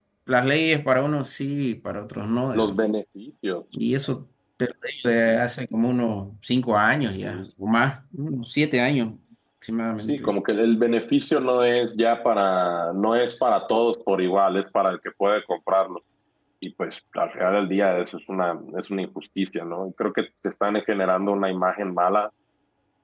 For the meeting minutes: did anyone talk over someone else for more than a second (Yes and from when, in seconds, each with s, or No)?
No